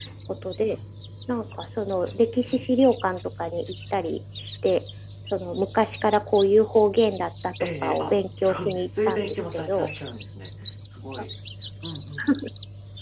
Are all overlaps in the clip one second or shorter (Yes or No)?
No